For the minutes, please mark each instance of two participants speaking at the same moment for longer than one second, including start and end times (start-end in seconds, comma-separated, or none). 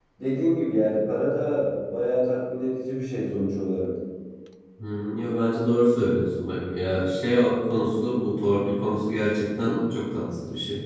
none